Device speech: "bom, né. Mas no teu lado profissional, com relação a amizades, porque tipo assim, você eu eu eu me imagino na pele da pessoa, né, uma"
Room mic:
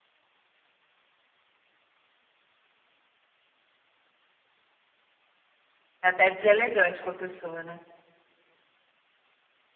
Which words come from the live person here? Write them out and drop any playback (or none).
É até deselegante com a pessoa, né?